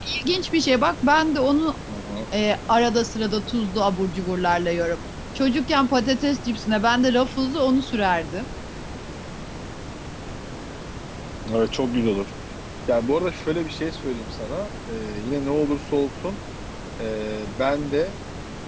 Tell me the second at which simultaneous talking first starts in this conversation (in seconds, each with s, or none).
none